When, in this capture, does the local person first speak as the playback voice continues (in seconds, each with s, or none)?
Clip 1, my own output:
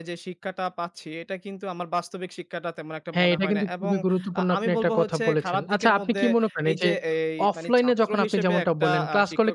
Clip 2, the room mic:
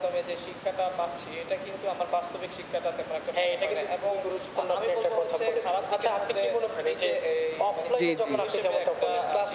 8.0 s